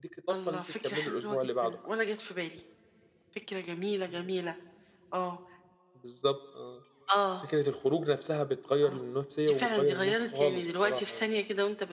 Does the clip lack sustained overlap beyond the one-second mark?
No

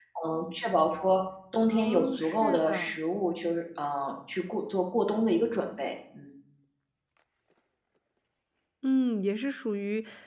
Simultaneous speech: Yes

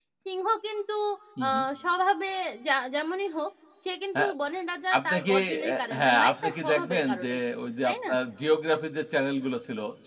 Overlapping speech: Yes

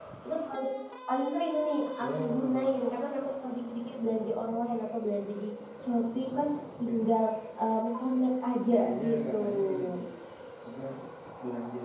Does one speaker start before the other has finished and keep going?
Yes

